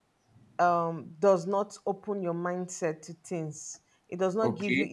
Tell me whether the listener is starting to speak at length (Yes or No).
No